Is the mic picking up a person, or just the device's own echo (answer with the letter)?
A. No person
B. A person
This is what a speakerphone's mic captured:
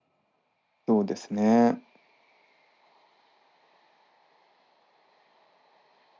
B